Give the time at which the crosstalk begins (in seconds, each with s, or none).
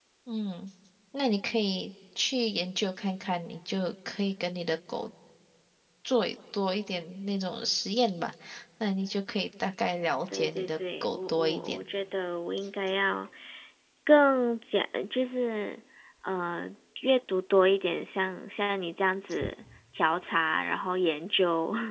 10.3 s